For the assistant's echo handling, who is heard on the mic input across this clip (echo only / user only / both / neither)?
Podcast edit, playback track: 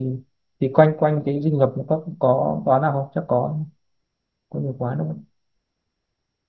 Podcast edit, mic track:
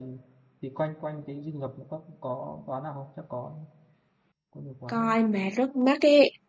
both